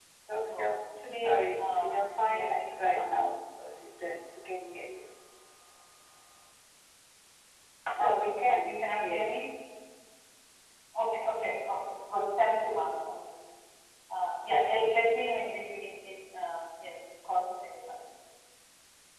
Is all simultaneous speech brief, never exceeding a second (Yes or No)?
No